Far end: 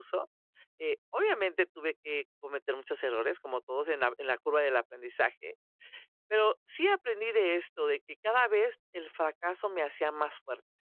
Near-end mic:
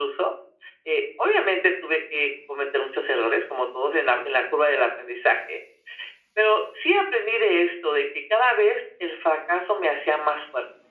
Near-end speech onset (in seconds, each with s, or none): none